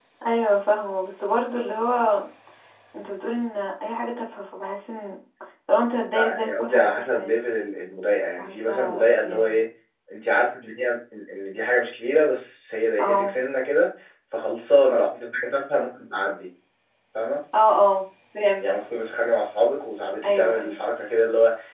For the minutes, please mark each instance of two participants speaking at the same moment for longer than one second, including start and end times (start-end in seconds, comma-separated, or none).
6.1-7.4, 8.4-9.6